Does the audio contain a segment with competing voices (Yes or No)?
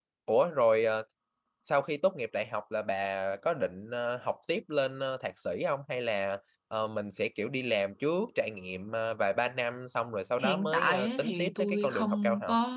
Yes